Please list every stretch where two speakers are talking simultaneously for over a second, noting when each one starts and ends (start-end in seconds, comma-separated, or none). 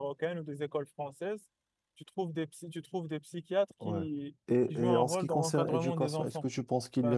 4.7-6.5